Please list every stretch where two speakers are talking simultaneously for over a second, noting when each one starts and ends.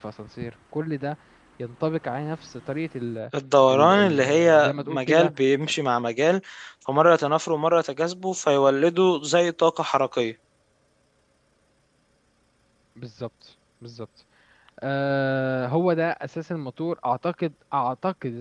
3.7-5.3

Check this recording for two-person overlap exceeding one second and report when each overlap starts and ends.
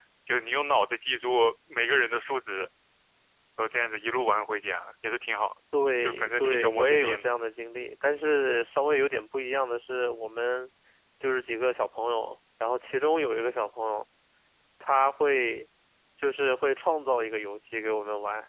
6.0-7.2

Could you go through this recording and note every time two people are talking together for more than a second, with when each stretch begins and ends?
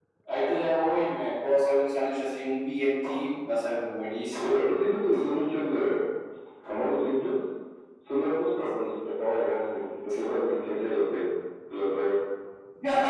none

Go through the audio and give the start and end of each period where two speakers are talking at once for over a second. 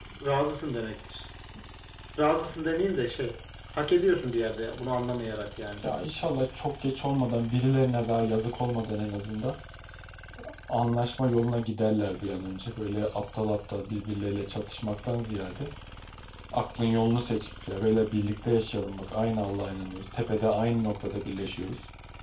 none

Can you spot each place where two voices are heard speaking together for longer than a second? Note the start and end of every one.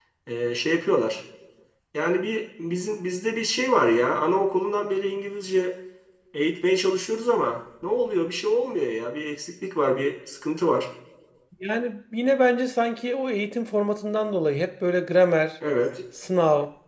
none

